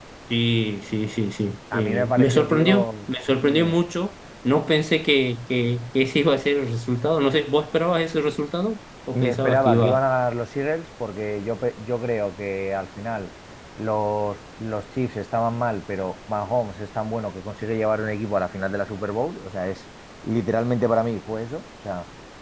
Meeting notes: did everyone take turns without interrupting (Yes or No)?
No